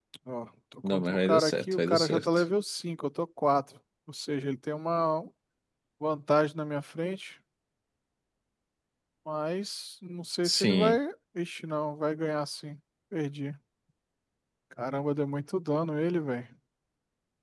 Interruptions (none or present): present